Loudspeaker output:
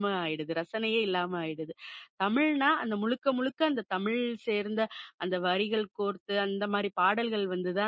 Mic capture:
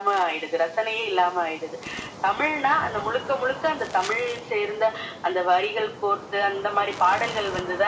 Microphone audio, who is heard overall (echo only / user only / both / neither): echo only